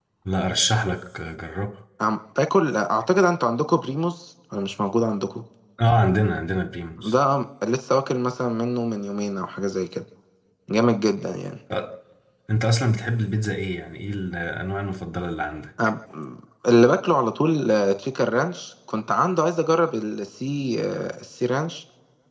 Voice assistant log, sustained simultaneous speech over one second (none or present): none